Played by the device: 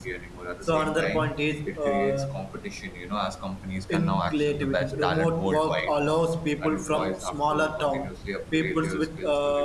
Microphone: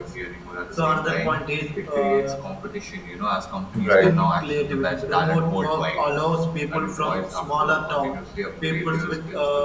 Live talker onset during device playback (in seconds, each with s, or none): 3.8 s